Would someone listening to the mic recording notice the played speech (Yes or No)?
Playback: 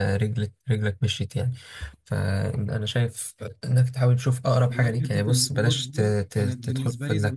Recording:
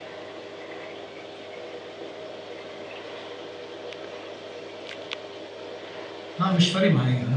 No